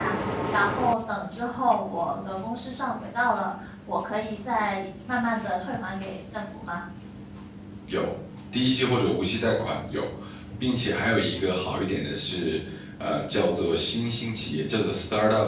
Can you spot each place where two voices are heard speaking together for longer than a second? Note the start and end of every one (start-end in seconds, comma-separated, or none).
none